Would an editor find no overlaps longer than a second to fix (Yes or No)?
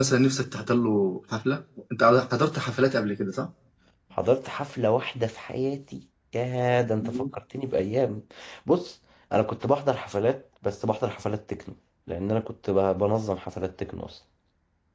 Yes